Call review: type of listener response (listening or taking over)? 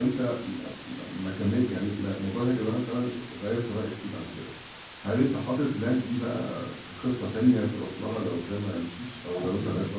taking over